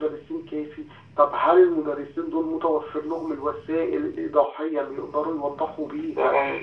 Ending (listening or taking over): taking over